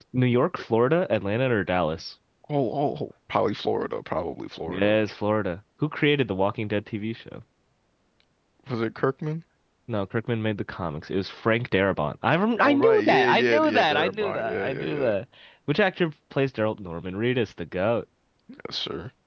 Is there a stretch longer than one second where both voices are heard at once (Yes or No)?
Yes